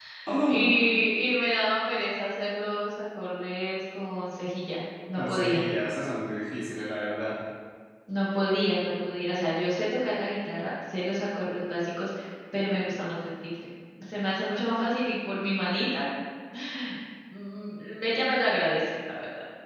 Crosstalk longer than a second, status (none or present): none